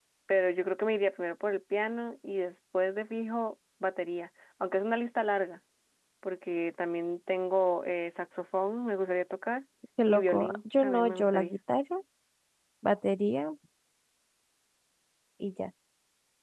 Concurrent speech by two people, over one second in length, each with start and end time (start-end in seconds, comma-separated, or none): 10.1-11.6